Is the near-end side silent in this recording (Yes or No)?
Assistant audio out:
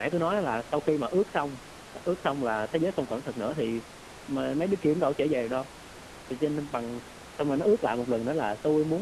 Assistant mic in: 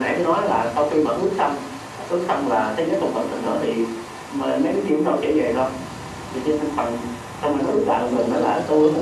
No